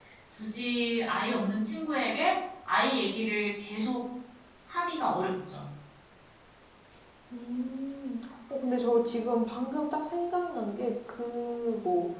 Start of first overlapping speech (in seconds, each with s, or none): none